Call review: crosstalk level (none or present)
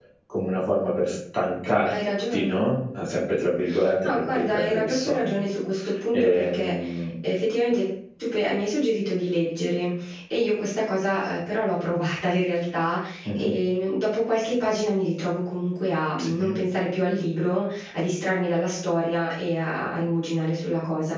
present